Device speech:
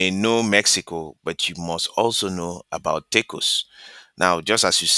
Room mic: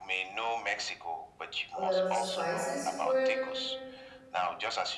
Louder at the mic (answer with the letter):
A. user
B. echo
A